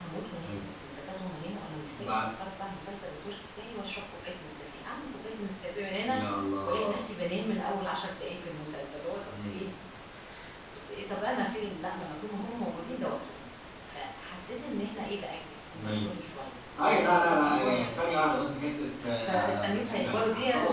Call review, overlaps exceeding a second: present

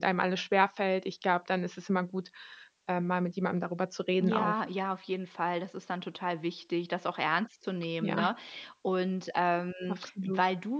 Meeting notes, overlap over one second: none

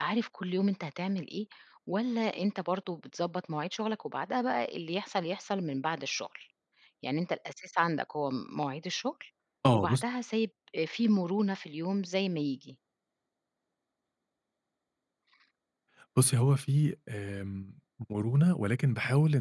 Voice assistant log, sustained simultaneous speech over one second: none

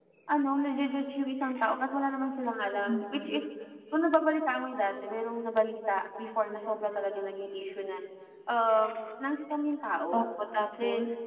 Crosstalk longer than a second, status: none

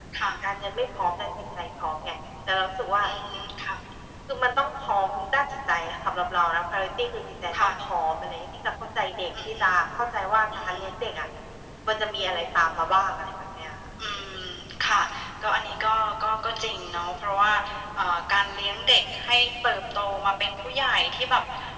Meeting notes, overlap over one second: none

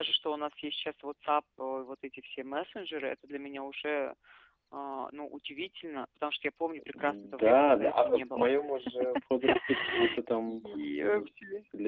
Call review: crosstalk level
present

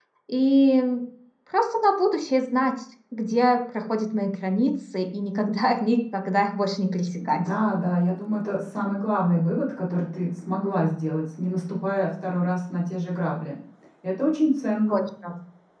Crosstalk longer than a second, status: none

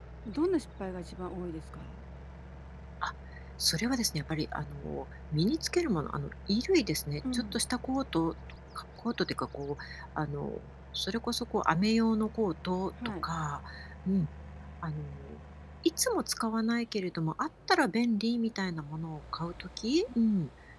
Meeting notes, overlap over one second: none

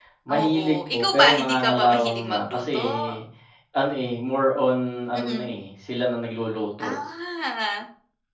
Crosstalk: present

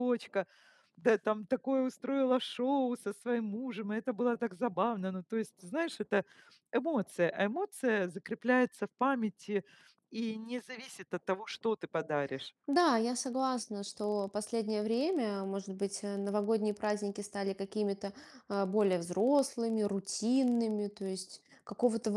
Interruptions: none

